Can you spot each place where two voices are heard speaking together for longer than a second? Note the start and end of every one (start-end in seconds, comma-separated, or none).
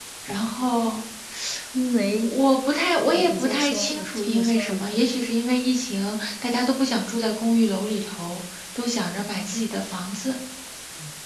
3.1-5.0